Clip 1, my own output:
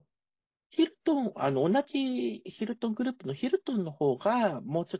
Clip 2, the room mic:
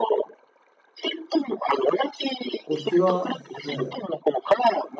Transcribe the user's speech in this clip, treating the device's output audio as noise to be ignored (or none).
こちら、ね、